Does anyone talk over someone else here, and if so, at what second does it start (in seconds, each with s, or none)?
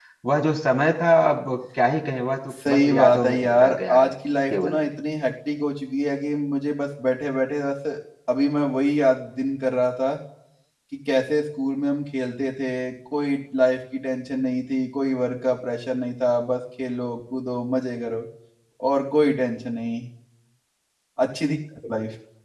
2.5 s